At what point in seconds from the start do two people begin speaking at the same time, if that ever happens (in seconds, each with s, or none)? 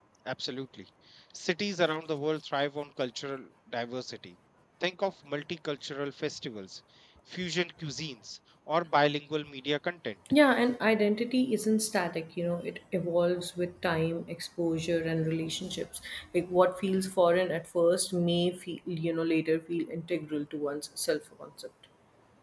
none